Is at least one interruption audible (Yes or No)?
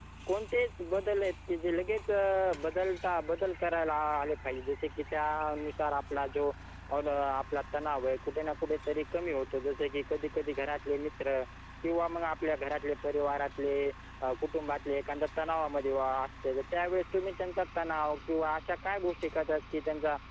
No